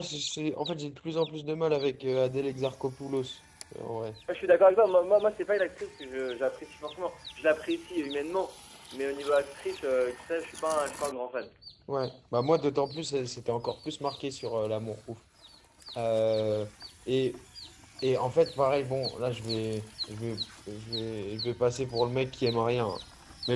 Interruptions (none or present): none